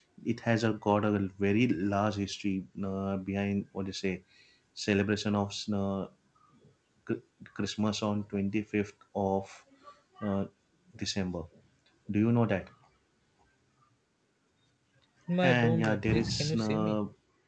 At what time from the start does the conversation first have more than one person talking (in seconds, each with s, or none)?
15.4 s